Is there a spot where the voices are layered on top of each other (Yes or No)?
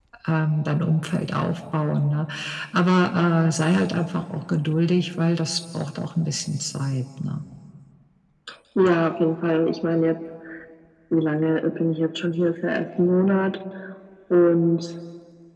No